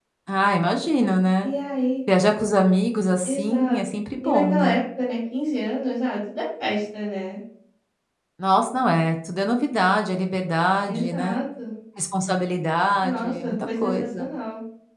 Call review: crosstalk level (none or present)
present